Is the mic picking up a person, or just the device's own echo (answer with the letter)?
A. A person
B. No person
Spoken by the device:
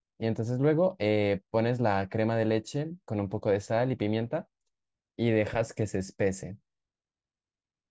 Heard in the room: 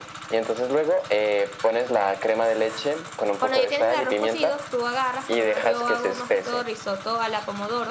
A